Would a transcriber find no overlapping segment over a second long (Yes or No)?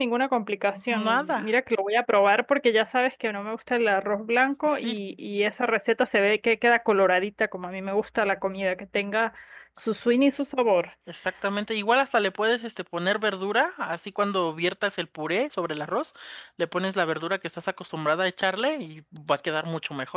Yes